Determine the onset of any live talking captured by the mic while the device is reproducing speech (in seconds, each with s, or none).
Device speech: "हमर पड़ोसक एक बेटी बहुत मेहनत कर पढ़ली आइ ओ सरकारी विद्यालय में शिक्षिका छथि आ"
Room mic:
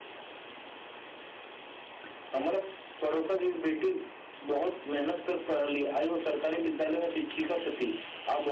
none